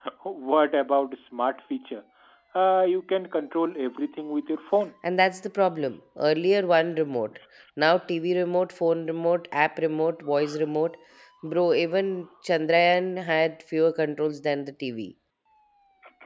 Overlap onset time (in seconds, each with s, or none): none